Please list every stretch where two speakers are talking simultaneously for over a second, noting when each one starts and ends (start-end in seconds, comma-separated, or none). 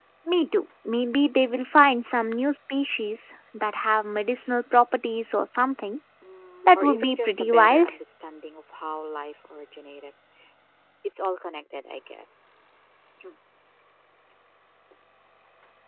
6.6-7.9